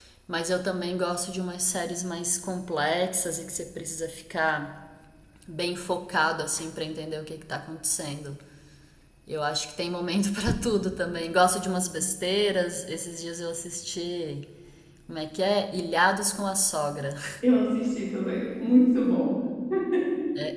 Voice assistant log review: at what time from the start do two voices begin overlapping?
none

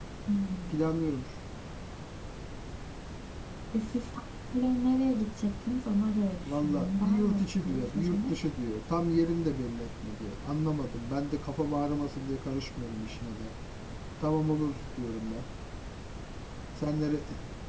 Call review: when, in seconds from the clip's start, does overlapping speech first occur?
6.4 s

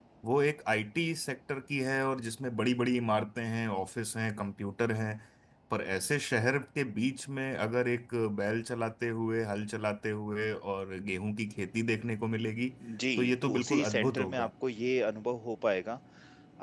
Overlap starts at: 13.2 s

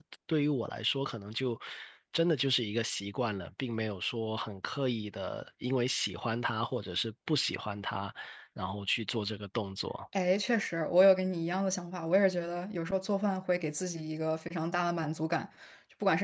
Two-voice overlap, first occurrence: none

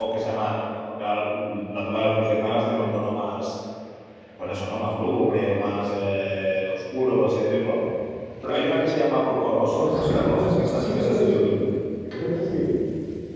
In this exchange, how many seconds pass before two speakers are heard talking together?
9.8 s

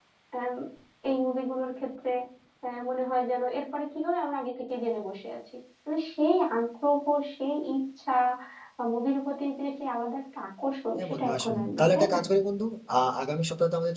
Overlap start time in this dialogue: 11.0 s

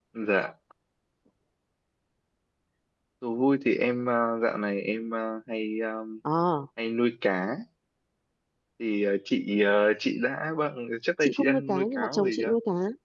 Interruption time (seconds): 11.2 s

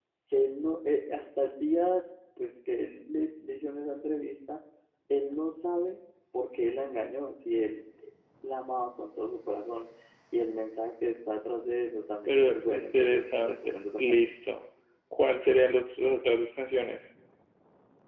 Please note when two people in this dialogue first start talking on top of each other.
12.3 s

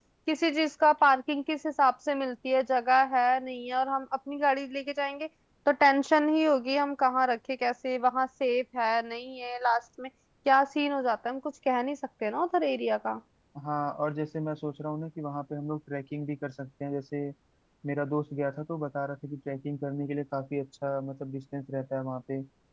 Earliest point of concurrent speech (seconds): none

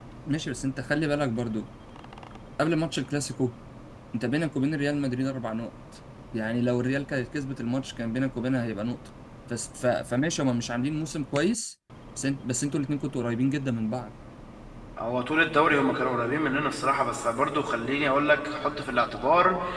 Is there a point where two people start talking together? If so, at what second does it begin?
none

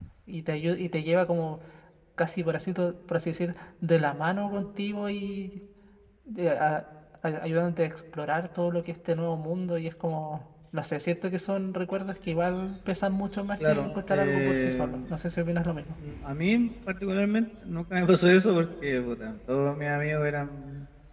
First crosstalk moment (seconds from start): 13.6 s

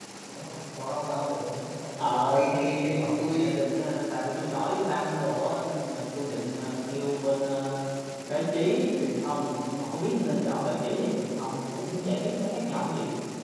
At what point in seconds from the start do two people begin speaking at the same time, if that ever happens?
2.0 s

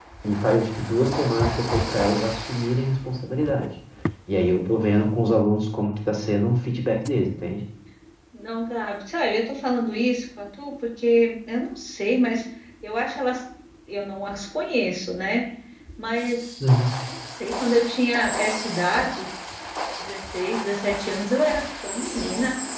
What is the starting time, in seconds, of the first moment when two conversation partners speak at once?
none

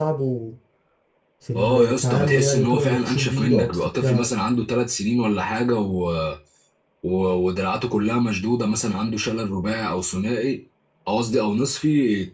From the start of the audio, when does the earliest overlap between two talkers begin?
1.5 s

